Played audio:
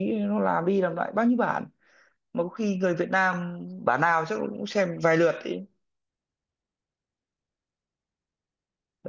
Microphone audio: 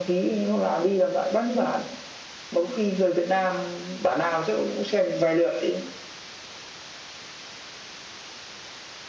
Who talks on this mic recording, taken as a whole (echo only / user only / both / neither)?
echo only